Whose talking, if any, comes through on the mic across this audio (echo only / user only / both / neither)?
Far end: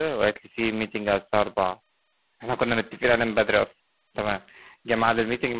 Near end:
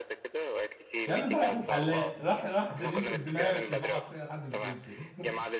both